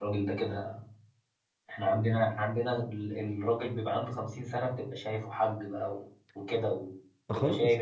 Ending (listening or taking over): taking over